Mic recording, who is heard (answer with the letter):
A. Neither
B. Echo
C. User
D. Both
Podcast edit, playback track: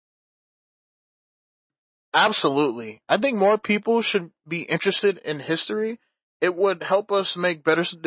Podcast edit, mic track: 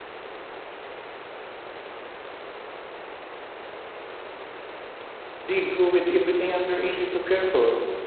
C